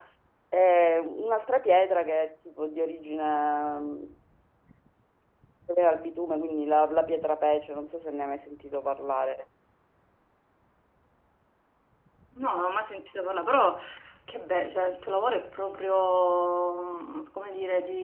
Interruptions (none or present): none